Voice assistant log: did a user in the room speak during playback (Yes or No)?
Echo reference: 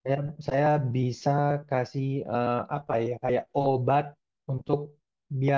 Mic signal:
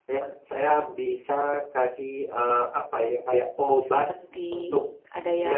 Yes